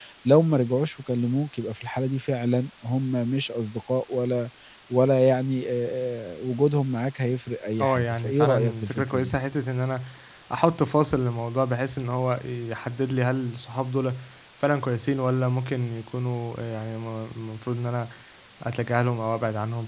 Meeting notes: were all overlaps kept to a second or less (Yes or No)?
No